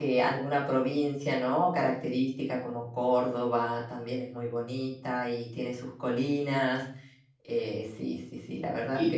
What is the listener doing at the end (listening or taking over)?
taking over